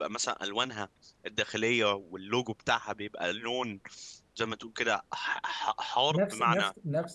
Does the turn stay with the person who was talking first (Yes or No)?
No